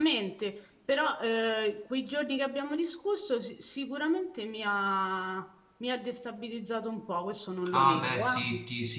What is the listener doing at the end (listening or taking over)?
taking over